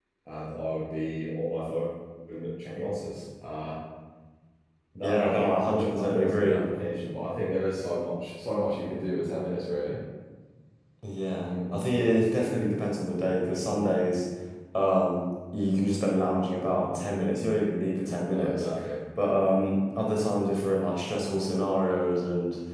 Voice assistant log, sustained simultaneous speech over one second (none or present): present